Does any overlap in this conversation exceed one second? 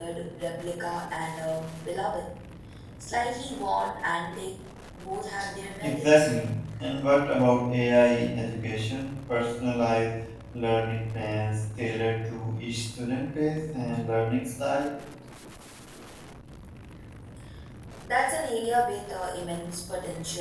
No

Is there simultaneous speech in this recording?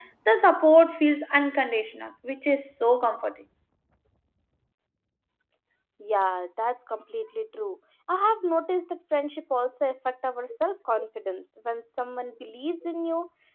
No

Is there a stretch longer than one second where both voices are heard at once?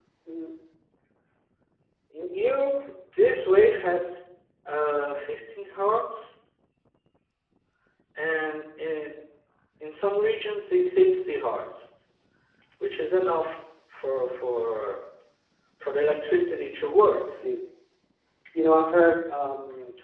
No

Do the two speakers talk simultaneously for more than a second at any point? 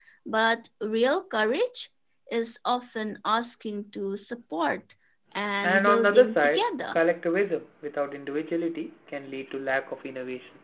Yes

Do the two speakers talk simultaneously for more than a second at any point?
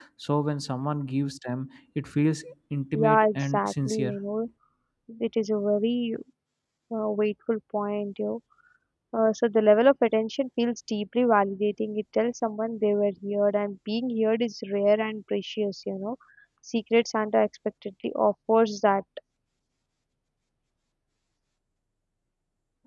Yes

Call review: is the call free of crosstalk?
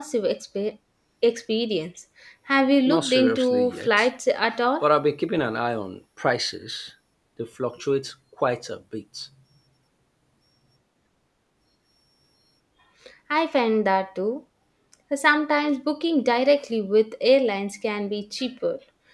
No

